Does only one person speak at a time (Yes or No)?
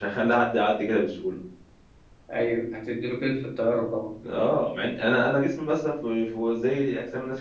Yes